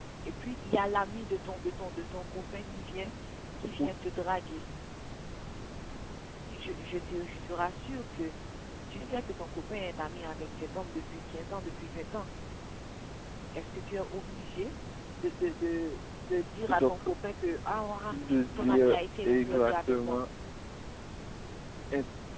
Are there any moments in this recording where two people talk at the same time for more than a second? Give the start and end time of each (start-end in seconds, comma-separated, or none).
18.3-20.2